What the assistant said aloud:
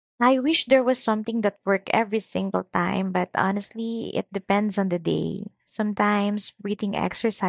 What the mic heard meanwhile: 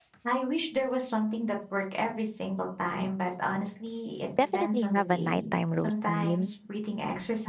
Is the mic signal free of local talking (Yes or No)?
No